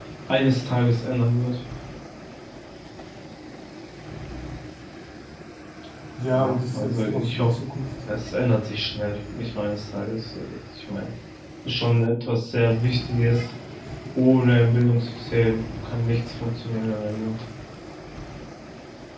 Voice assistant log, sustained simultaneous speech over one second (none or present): present